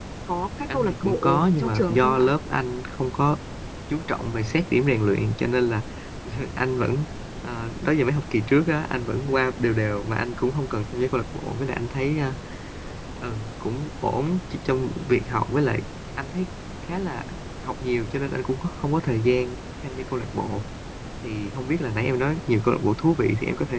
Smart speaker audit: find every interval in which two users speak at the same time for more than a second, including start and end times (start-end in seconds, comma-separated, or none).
0.7-2.3